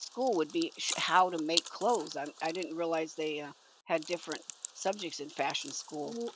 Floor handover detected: Yes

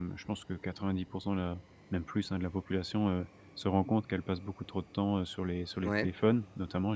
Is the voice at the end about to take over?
No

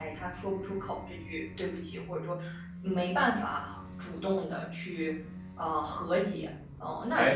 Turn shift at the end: Yes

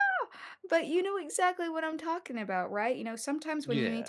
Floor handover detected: No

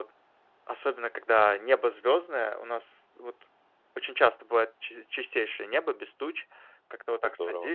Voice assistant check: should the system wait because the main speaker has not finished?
Yes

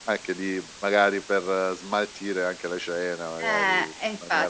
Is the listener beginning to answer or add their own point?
Yes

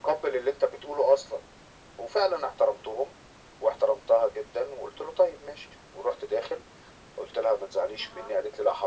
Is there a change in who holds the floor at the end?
No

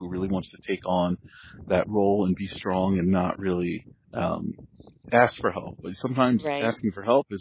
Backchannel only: Yes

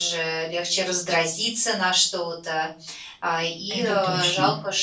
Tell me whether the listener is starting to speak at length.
No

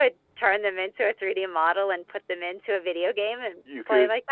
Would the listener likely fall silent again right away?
No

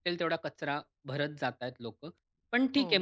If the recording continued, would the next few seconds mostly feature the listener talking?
No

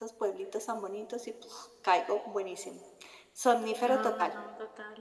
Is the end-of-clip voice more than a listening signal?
Yes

